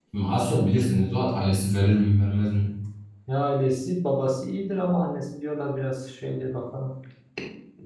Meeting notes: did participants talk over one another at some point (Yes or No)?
No